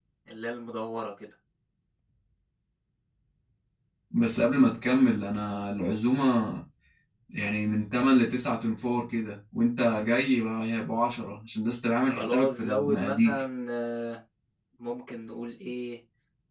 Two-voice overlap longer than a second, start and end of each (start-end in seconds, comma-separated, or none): 12.1-13.4